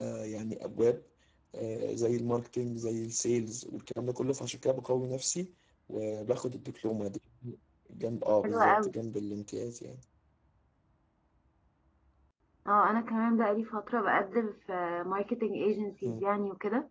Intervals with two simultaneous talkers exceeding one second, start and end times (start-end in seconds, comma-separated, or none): none